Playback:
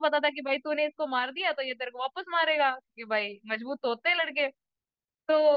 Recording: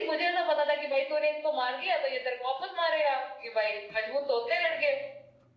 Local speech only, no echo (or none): none